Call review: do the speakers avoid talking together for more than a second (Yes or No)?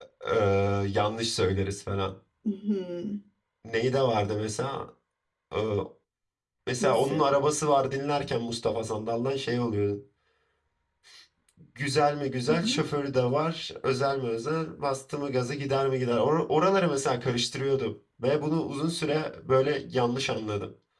Yes